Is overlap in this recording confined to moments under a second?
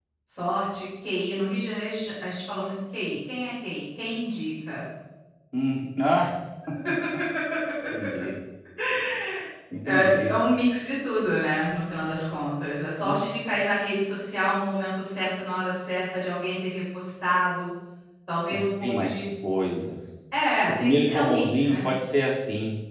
No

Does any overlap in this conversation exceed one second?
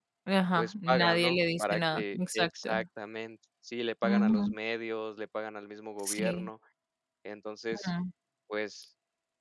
Yes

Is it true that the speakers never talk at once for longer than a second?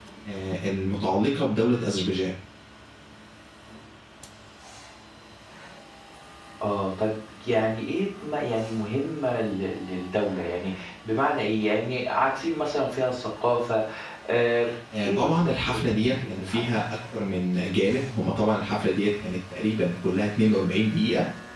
No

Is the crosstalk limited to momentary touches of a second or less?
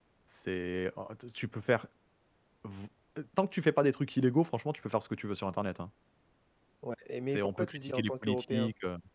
No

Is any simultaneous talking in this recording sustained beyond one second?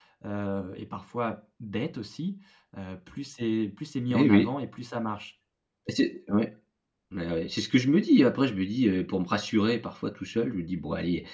No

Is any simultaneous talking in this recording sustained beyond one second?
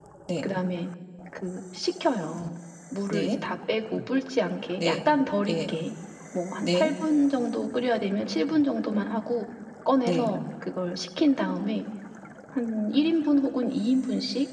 No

